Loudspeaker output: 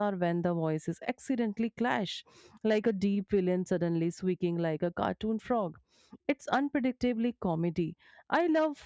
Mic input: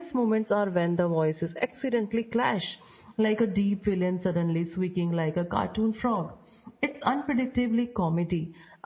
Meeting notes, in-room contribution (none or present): none